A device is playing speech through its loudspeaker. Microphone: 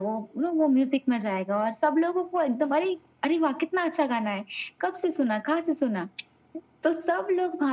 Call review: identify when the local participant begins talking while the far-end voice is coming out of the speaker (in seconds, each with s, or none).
none